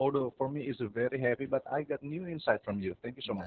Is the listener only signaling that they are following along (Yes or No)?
No